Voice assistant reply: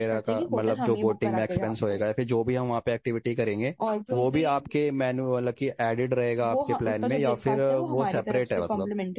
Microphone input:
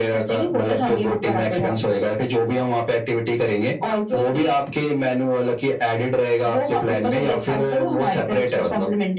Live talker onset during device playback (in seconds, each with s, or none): none